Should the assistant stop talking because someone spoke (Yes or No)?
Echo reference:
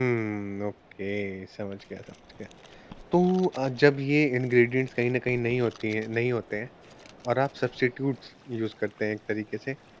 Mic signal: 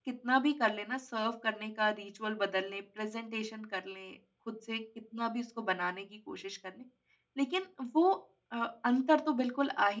Yes